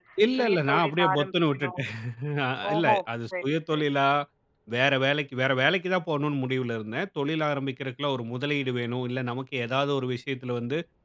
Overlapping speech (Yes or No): Yes